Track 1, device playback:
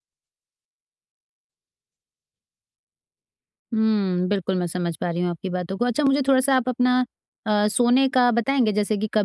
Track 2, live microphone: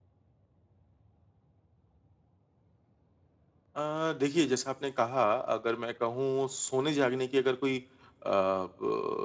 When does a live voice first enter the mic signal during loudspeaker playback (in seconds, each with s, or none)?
3.8 s